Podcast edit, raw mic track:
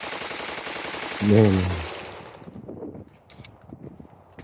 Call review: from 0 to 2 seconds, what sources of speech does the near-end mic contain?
user only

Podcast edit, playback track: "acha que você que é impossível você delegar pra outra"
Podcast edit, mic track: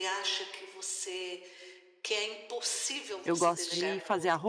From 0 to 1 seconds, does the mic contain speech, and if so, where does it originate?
echo only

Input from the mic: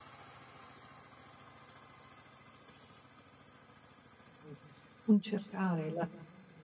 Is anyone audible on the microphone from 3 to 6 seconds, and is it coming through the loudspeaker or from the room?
user only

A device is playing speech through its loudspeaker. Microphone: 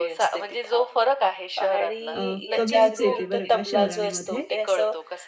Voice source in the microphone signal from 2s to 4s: both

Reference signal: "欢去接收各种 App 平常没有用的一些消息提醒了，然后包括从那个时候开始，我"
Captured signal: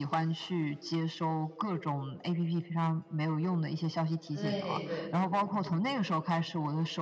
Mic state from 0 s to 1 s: echo only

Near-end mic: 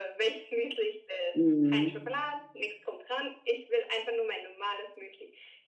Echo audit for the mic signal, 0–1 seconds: echo only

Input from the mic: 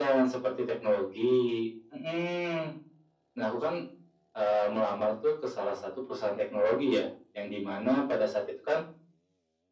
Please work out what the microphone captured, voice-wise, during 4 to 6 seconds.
echo only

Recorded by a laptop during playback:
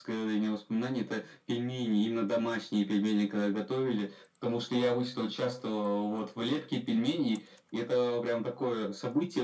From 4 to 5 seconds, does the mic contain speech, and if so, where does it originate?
echo only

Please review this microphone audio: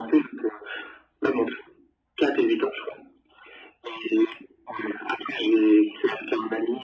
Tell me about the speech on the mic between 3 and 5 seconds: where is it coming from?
echo only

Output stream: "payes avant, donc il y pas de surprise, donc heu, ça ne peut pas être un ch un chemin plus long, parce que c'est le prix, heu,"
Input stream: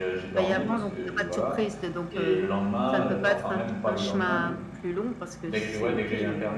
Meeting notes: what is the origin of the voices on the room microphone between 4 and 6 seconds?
both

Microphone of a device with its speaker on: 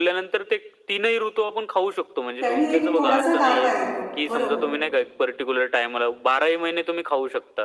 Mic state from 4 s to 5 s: both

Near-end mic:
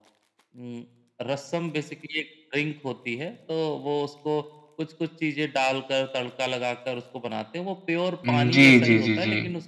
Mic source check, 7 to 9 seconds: both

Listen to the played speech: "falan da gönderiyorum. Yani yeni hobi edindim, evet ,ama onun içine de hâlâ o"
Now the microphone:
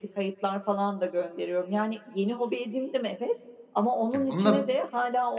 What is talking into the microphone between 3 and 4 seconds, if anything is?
echo only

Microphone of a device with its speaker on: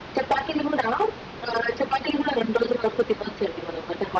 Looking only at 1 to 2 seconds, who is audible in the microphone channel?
echo only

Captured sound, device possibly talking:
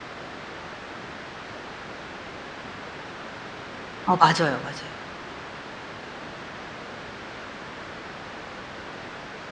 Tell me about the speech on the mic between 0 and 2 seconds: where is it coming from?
neither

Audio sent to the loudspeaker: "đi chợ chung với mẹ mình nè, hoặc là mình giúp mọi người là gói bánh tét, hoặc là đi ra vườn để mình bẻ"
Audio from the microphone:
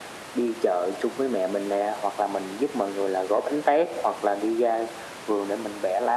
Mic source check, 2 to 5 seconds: echo only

